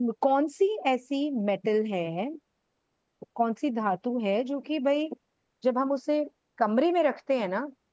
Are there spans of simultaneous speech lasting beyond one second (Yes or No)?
No